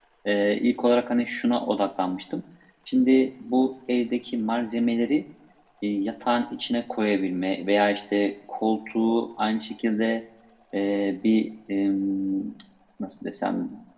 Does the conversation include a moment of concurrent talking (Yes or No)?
No